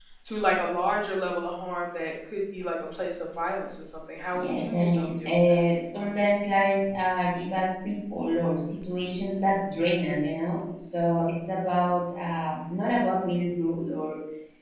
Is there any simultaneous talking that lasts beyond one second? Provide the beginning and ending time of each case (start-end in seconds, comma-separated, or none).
4.3-5.6